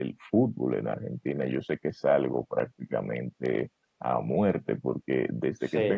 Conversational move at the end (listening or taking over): listening